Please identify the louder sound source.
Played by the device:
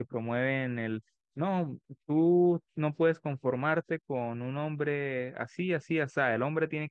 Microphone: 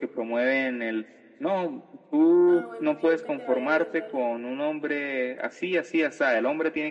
echo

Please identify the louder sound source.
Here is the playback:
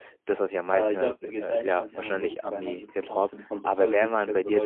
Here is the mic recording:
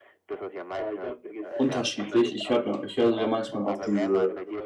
user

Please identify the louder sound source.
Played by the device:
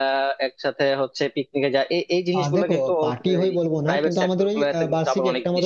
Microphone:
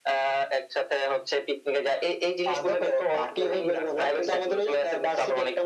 echo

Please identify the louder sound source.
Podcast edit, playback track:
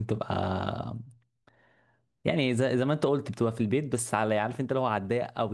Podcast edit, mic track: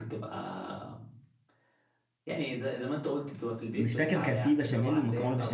user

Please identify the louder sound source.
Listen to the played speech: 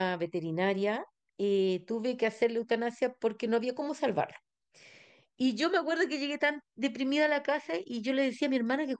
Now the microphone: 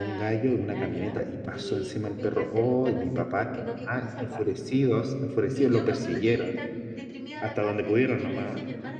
user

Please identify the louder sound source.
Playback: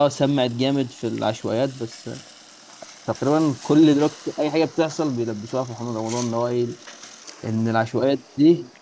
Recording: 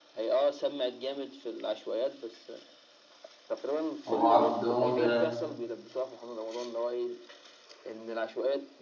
user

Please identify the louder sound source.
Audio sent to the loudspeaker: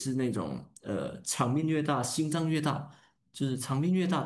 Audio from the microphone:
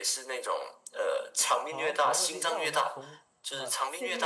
echo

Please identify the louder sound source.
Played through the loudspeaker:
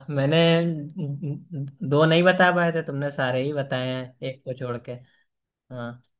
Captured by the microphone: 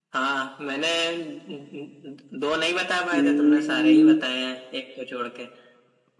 user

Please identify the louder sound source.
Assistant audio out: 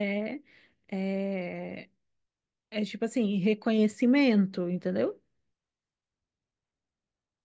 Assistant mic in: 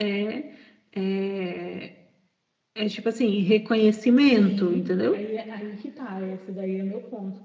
echo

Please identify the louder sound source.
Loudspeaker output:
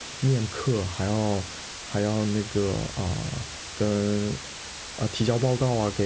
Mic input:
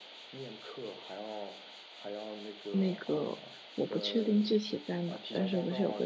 user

